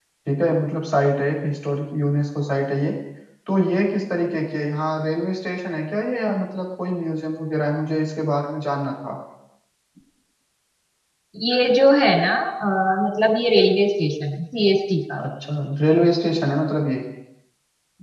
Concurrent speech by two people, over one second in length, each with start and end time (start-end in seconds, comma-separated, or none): none